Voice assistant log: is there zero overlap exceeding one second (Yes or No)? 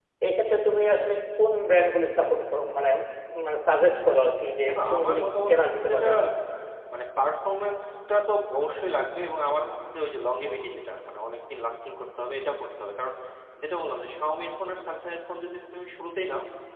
No